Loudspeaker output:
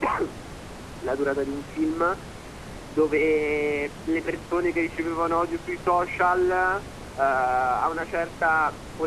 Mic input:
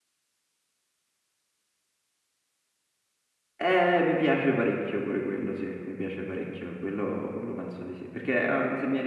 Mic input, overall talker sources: user only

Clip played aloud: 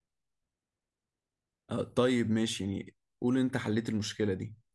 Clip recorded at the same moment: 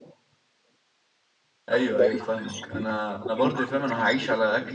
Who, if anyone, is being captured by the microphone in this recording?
both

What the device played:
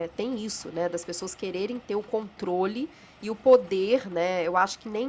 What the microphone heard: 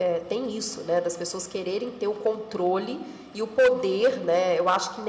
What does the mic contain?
echo only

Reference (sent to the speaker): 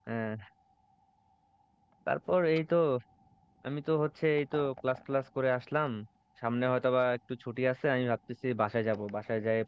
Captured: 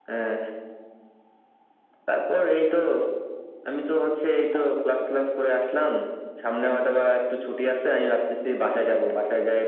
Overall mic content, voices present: echo only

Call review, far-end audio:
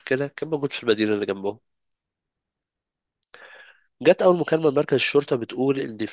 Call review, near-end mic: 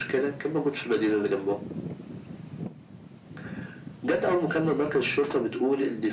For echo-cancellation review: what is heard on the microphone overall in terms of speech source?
echo only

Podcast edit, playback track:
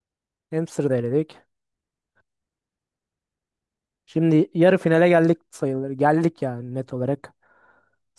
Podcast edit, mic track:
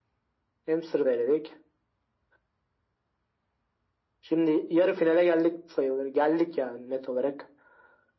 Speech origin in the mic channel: echo only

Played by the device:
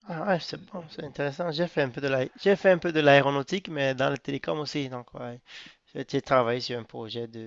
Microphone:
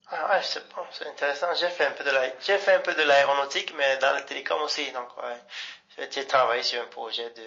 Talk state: echo only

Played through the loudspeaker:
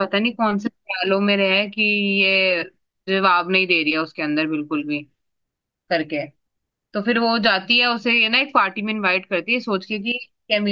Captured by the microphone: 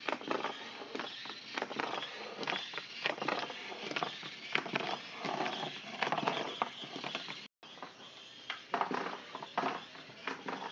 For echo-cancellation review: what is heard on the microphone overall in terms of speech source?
neither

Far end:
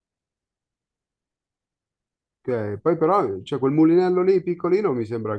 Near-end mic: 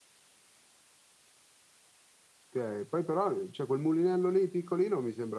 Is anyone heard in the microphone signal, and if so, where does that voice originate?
echo only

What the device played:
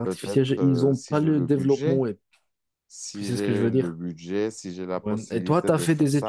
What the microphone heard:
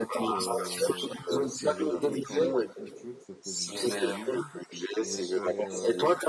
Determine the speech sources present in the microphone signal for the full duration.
both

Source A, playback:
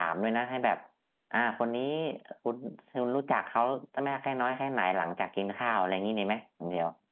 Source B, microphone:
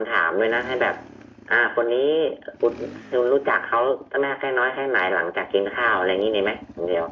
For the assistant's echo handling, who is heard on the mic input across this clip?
echo only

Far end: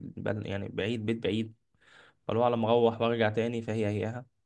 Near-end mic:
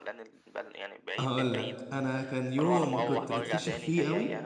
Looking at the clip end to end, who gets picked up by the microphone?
both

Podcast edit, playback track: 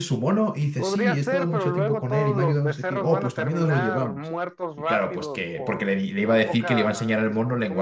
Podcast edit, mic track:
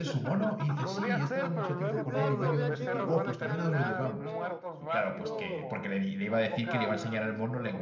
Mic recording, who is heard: both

